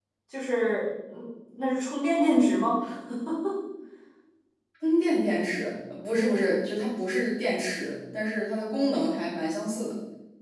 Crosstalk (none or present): none